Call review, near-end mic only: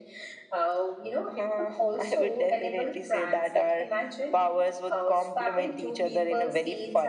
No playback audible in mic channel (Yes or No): No